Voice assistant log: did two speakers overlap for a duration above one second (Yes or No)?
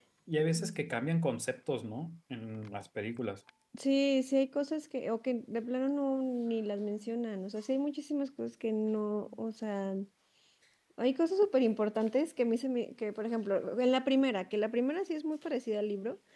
No